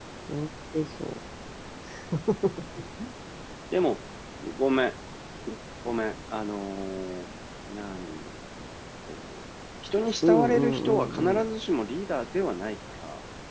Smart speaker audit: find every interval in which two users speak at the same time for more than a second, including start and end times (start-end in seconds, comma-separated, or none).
10.2-11.4